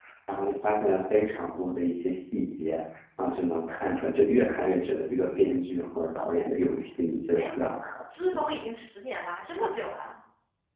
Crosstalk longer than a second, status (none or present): none